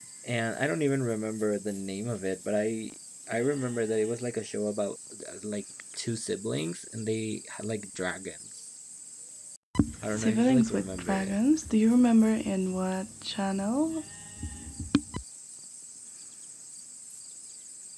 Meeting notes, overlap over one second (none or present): present